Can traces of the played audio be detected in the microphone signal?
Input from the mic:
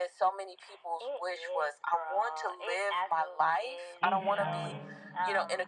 Yes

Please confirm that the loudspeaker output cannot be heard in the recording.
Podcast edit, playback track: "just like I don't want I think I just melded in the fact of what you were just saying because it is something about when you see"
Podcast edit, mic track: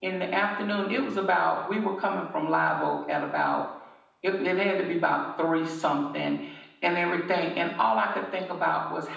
Yes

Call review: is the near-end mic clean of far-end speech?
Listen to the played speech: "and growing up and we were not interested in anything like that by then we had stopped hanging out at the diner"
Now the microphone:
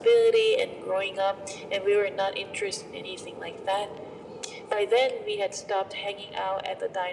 No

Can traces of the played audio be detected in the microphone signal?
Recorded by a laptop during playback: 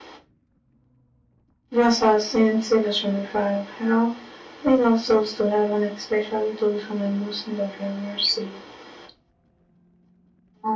Yes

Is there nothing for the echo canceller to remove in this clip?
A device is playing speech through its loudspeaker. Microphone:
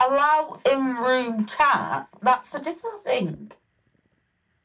No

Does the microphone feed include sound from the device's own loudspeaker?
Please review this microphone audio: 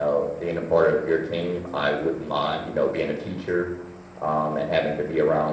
No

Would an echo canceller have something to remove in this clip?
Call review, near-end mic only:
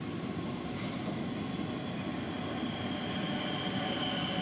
No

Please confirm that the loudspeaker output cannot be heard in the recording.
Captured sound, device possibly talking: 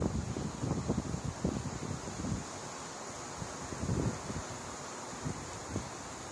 Yes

